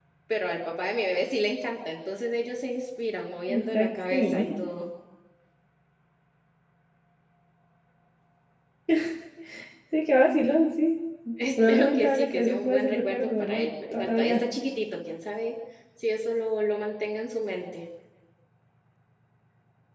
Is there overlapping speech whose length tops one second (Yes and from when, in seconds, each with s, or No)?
Yes, from 3.5 s